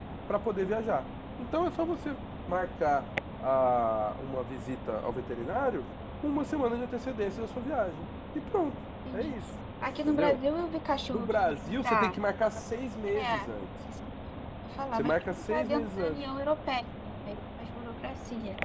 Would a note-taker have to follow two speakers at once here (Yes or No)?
Yes